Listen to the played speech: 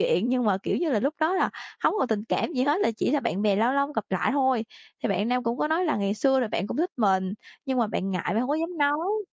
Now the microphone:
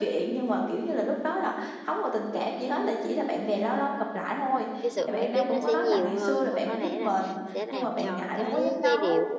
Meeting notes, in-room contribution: present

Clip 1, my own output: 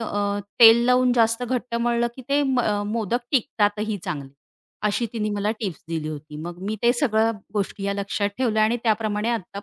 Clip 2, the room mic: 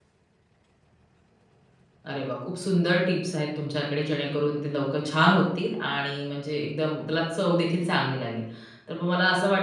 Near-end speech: present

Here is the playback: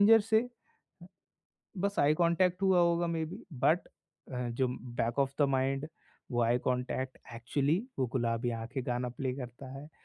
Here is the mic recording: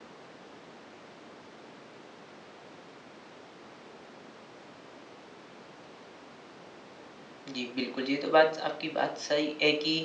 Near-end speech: present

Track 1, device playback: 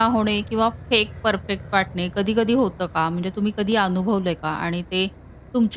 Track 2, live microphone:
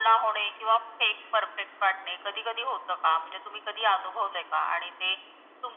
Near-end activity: none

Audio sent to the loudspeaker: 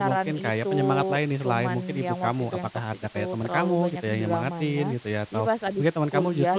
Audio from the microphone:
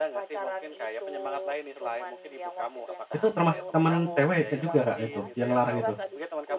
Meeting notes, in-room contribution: present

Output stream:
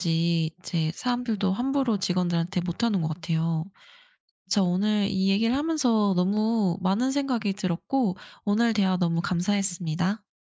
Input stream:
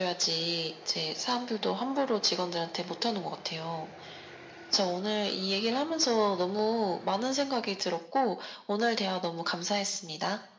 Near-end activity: none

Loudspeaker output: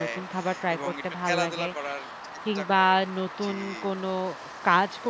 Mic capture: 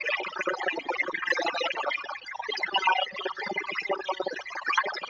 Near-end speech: none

